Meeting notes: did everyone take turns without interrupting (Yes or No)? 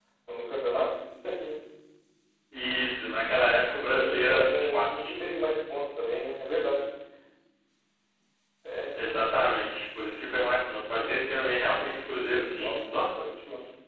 No